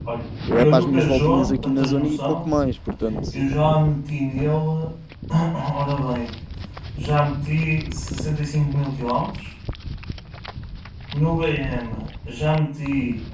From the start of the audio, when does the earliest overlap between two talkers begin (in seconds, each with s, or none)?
0.5 s